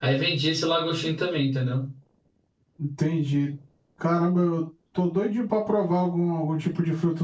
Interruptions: none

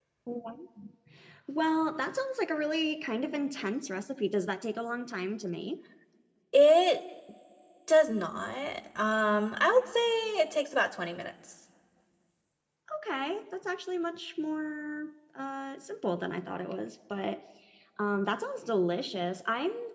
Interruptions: none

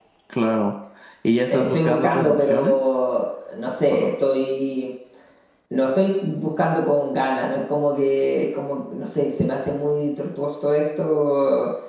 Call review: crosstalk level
present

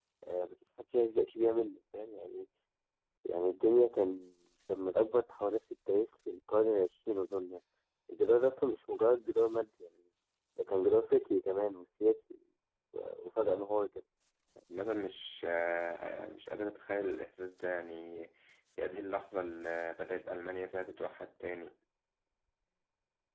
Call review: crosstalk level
none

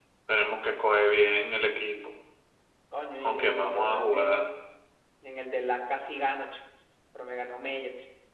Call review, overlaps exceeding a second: present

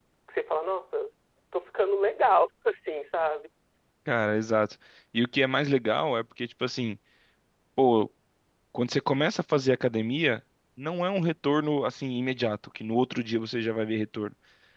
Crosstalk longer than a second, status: none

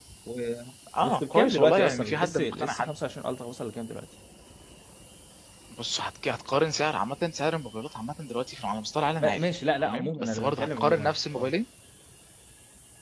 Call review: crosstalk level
present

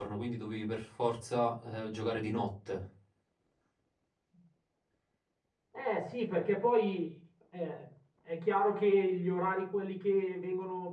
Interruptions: none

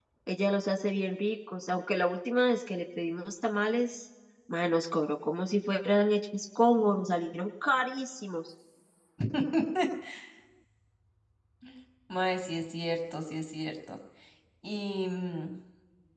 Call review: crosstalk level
none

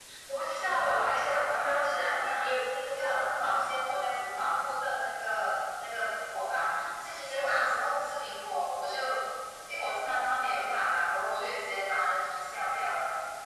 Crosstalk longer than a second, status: present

